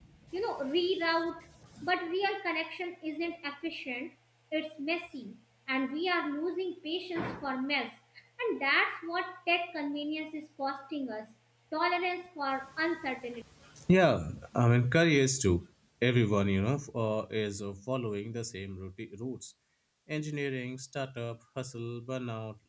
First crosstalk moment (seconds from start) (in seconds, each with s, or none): none